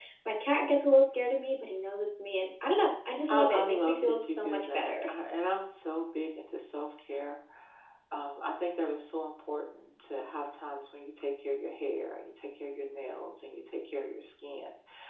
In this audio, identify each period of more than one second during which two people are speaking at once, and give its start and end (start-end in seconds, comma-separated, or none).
3.3-5.1